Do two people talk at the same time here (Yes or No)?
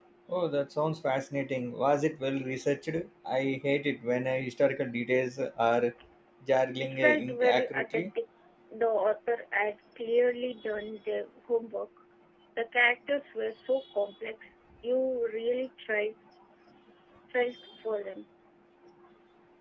Yes